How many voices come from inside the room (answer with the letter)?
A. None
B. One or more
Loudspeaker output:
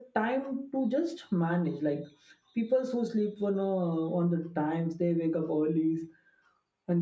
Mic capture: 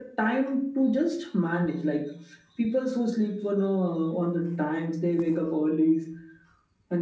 A